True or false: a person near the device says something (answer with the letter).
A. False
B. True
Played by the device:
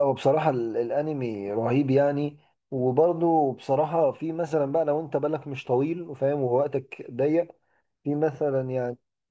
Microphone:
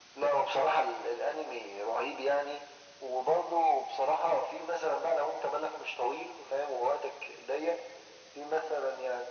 A